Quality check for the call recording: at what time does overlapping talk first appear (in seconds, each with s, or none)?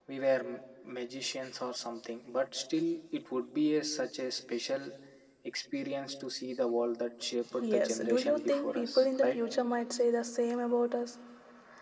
7.4 s